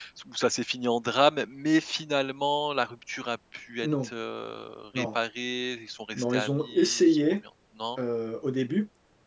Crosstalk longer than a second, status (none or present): present